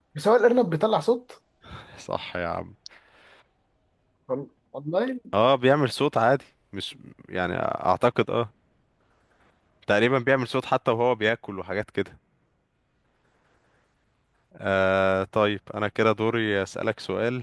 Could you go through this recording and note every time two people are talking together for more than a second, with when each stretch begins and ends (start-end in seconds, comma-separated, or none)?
none